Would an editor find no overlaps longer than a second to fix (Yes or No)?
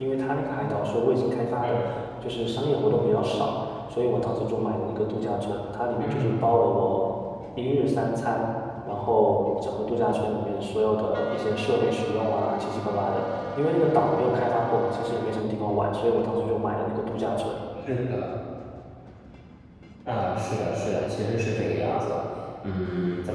Yes